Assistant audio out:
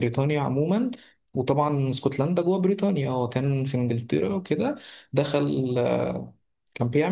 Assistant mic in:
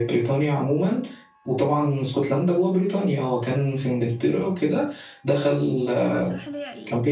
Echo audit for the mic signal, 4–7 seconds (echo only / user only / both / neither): both